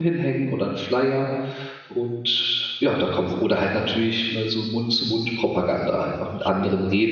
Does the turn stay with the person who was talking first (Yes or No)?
No